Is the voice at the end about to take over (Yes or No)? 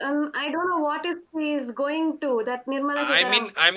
Yes